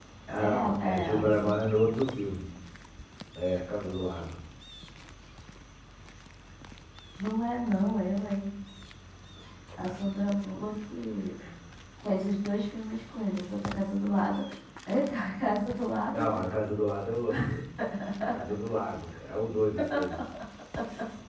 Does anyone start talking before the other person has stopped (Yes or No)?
Yes